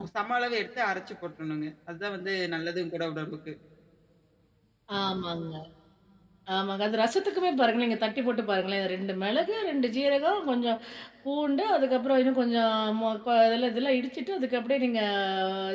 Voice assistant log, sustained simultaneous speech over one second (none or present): none